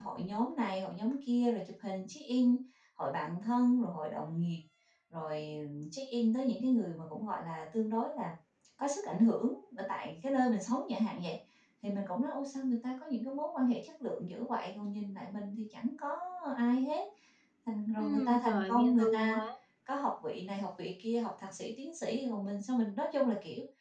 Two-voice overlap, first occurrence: 18.0 s

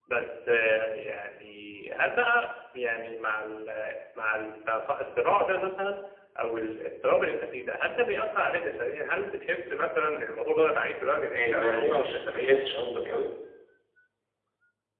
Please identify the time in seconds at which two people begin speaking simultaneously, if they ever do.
11.4 s

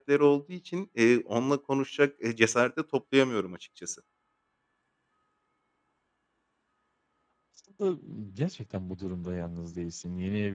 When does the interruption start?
none

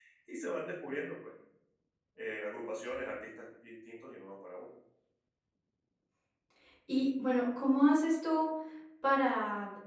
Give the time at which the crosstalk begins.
none

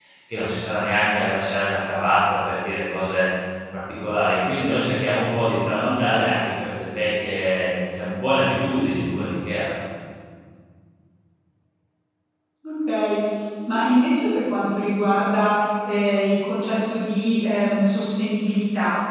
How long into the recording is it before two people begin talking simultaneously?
none

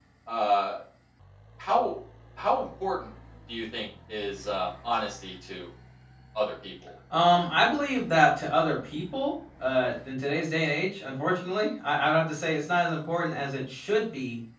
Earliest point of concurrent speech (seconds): none

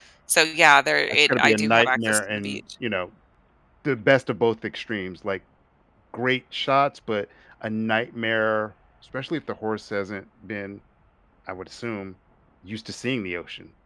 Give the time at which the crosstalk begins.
1.1 s

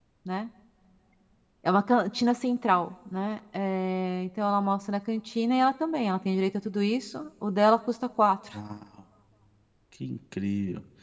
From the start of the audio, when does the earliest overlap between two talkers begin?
none

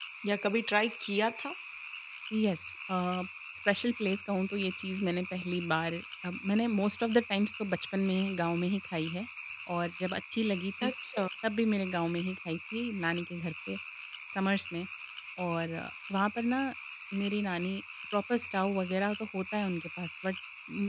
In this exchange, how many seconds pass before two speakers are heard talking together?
none

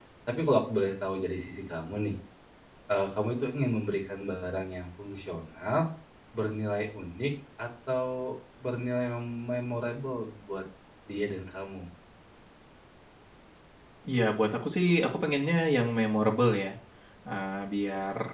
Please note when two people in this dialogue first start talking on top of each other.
none

